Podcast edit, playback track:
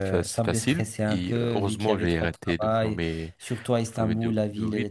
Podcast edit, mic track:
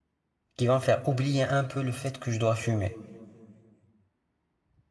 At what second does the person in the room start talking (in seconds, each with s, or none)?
0.6 s